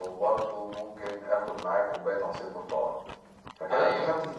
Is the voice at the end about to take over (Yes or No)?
No